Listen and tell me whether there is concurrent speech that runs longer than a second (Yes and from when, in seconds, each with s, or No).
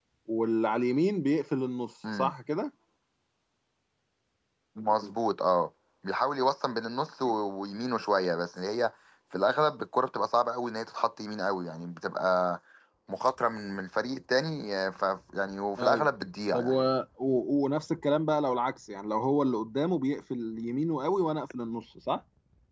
No